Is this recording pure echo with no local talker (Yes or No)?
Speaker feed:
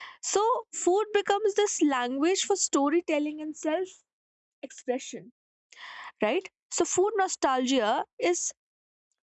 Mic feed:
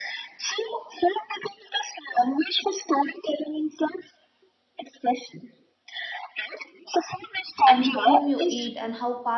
No